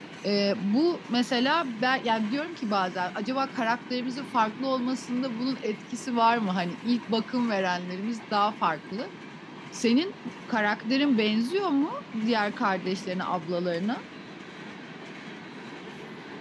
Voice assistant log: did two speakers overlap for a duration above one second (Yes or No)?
No